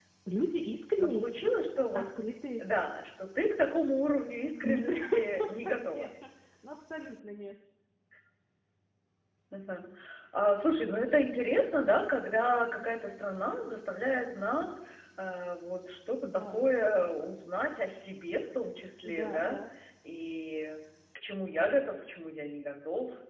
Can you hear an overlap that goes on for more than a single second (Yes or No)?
Yes